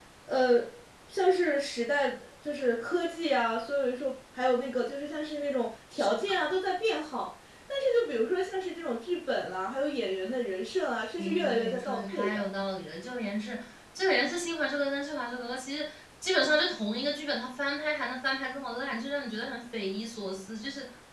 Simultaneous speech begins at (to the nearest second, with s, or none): 11 s